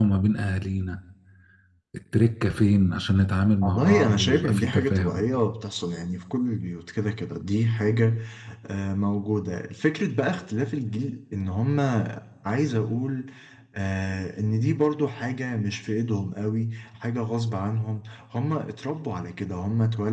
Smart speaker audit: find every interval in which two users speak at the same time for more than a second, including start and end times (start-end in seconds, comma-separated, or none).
3.6-5.3